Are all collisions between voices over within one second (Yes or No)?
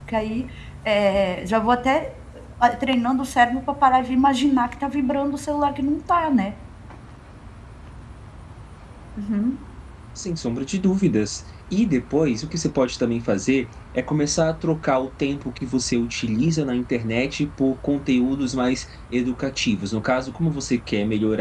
Yes